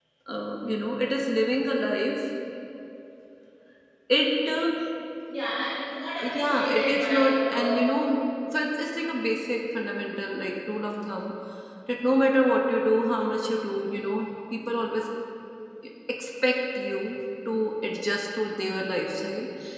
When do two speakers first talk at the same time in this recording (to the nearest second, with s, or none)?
6 s